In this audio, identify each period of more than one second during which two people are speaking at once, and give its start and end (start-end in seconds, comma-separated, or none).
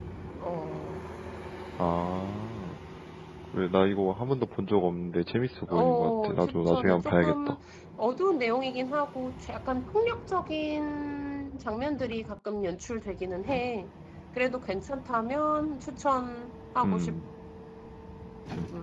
5.7-7.5